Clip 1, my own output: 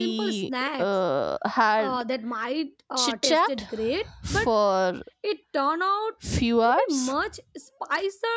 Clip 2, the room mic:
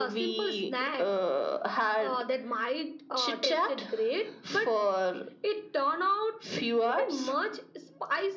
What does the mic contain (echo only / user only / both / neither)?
echo only